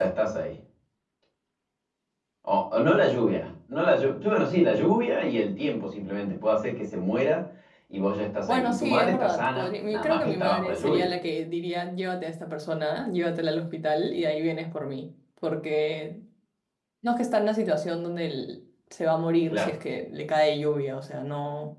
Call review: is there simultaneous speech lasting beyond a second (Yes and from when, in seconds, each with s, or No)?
Yes, from 8.5 s